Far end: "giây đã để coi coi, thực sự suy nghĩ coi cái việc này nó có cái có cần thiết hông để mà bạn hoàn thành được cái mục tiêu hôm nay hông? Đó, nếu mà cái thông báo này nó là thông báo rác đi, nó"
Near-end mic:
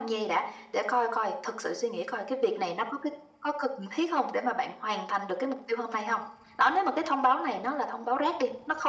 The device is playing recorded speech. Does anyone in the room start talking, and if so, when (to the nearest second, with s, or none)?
none